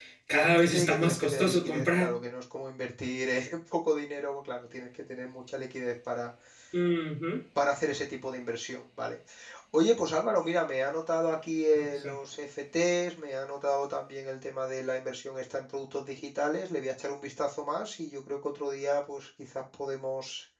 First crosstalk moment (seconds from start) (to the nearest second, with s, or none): 1 s